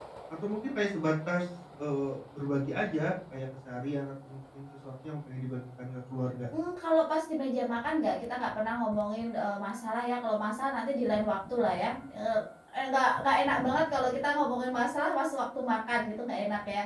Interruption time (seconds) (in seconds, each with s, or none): none